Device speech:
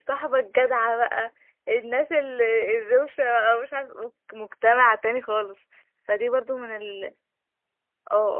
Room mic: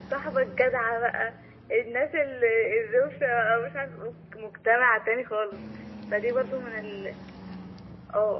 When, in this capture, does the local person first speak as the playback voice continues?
none

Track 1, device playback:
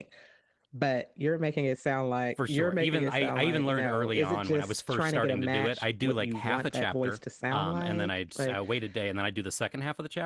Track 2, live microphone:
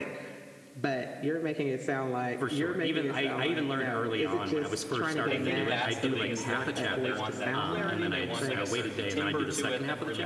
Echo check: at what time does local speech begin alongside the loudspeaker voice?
5 s

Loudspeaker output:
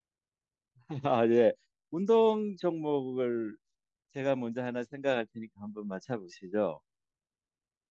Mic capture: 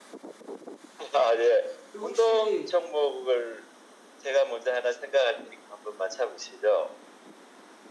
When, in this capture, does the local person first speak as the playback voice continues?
2 s

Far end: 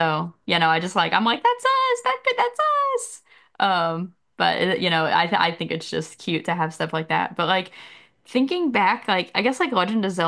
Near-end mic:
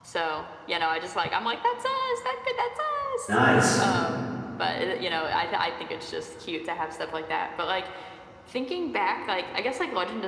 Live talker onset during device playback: 3 s

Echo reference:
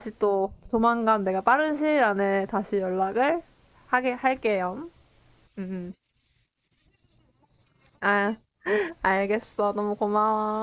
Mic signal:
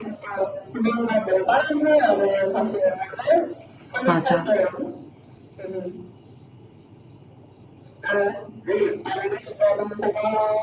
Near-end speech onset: 4 s

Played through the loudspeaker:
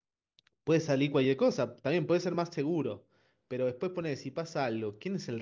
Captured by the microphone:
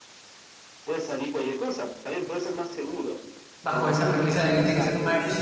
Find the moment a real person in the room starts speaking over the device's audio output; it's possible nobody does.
4 s

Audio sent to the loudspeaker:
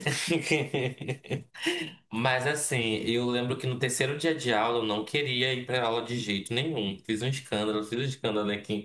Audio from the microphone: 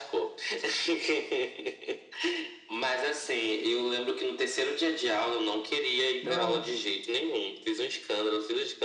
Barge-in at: 6 s

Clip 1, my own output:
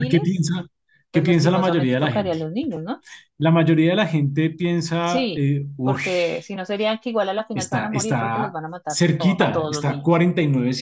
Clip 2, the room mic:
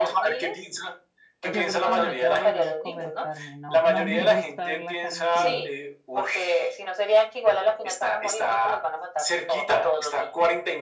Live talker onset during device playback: 1 s

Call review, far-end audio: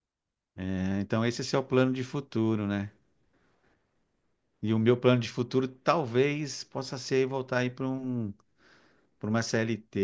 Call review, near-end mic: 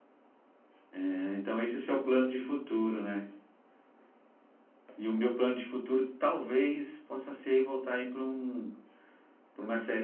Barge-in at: none

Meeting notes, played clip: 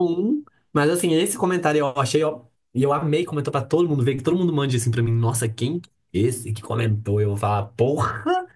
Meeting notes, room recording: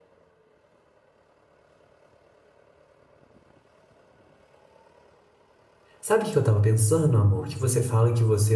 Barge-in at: 6 s

